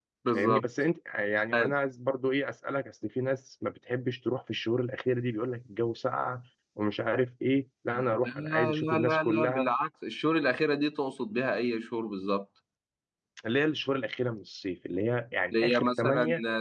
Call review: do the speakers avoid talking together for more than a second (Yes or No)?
No